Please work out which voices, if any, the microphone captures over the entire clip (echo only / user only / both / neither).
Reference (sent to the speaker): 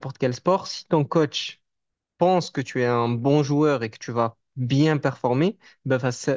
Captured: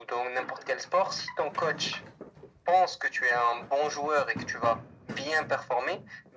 echo only